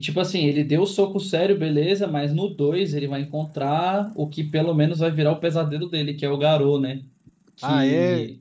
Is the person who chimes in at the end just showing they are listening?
No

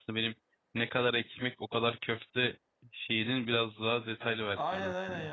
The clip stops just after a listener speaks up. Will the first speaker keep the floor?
No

